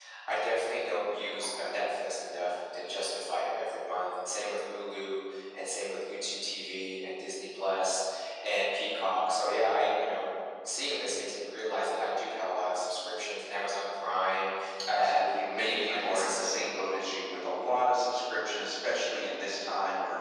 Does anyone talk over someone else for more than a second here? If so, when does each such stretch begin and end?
14.9-16.7

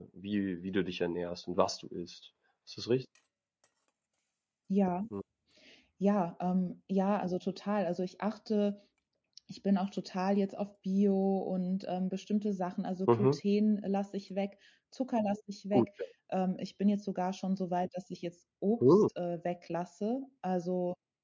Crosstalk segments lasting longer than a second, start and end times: none

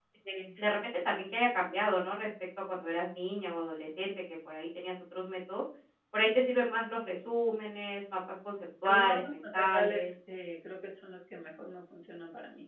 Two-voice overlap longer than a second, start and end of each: 8.8-10.1

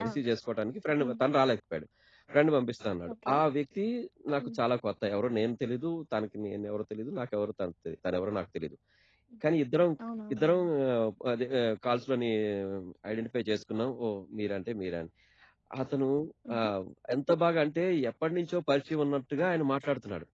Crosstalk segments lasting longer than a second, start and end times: none

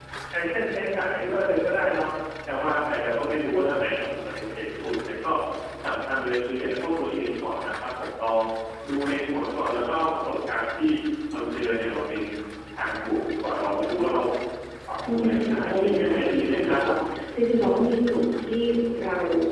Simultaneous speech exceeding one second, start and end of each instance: 15.1-16.8

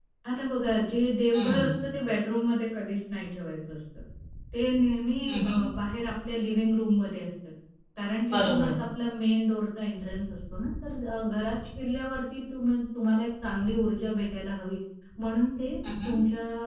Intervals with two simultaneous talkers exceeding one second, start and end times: none

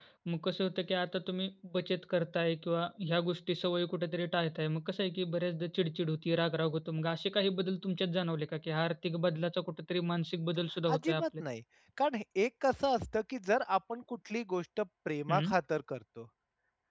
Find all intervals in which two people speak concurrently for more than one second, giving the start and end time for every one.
none

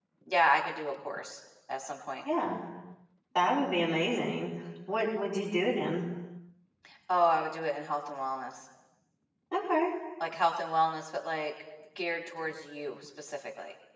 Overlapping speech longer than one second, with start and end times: none

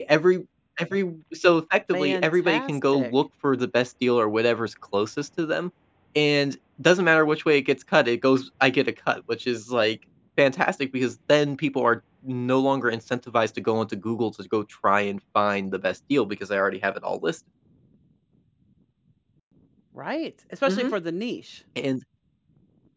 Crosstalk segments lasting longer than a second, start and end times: 1.9-3.1

